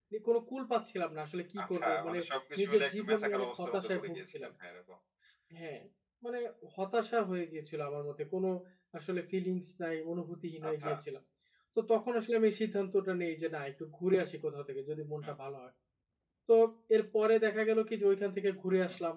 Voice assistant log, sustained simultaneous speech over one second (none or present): present